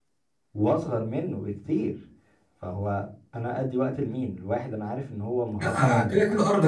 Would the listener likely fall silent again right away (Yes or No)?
No